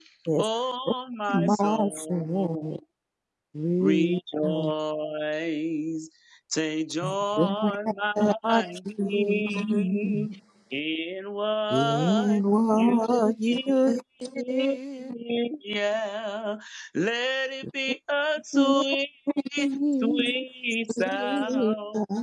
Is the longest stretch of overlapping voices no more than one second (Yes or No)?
No